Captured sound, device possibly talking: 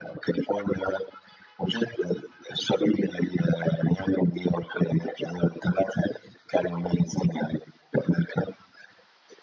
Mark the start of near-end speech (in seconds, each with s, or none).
none